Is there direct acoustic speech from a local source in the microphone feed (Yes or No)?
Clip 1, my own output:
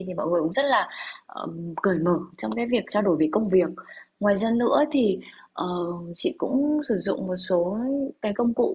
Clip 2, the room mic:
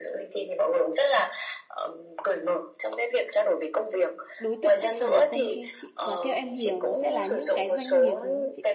Yes